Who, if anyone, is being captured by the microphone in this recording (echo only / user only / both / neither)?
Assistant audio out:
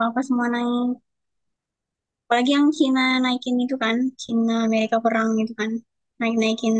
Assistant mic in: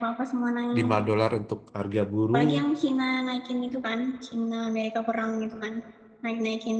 both